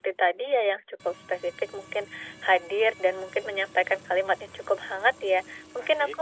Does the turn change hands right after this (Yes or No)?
No